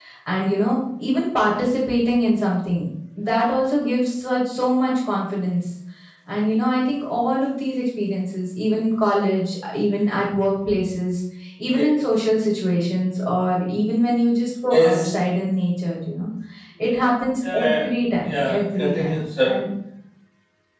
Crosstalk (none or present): present